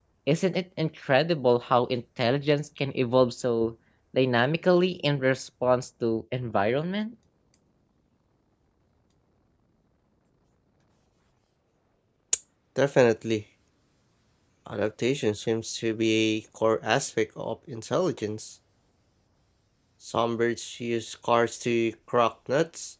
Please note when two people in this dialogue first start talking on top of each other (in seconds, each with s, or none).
none